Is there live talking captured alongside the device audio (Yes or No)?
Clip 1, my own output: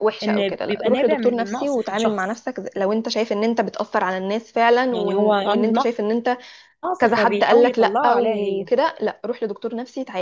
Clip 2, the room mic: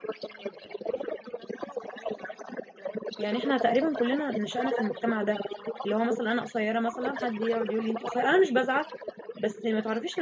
Yes